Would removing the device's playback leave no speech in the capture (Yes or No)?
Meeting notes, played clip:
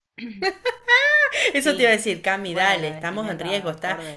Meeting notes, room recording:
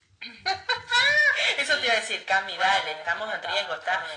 Yes